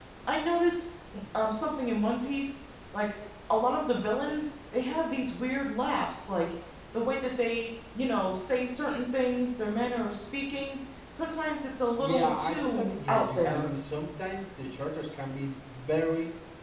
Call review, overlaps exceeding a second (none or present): present